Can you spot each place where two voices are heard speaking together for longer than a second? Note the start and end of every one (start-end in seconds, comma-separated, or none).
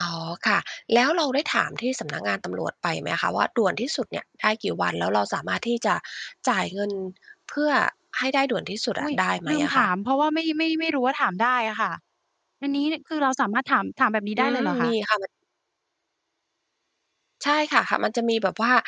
none